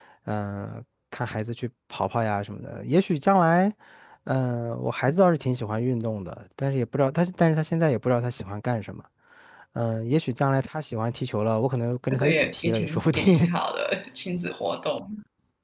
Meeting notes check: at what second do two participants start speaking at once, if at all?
12.1 s

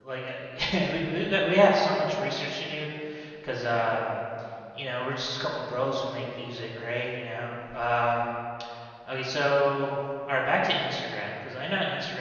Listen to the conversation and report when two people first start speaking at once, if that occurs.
none

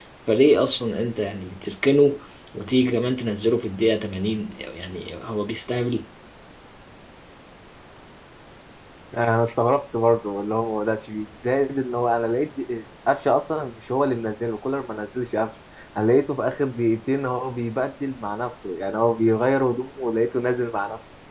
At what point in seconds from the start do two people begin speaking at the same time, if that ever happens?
none

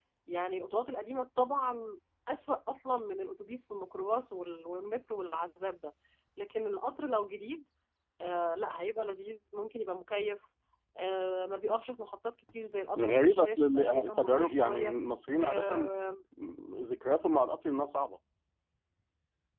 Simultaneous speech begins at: 13.0 s

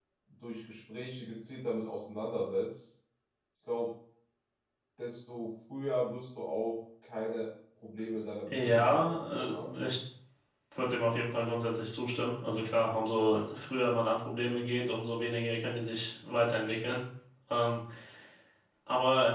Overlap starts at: 8.5 s

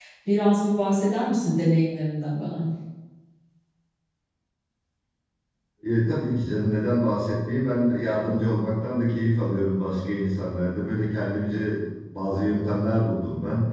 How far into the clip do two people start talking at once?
none

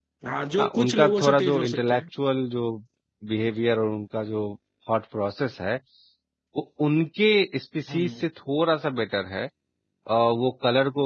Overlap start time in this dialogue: 0.6 s

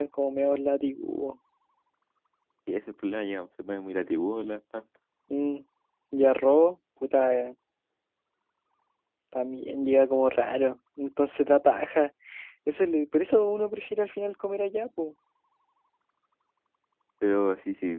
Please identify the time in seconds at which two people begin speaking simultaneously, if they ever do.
none

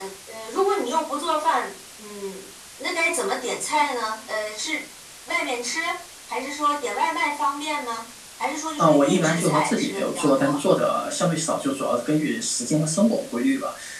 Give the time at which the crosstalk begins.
8.8 s

